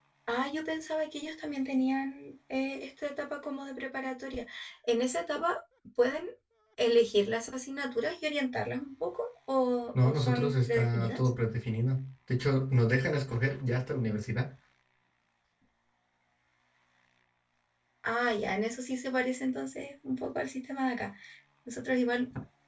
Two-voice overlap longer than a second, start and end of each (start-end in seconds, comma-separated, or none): 9.9-11.3